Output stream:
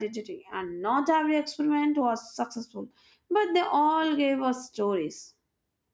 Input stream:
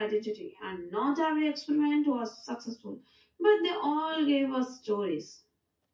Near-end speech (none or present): none